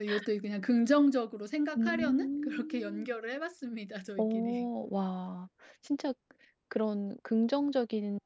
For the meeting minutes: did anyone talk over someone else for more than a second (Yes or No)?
Yes